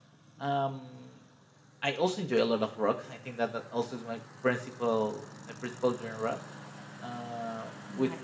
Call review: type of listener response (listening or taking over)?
listening